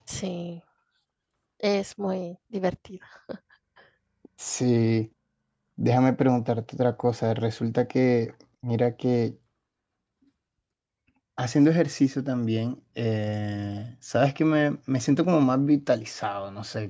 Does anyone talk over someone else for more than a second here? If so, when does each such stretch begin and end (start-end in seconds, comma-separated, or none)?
none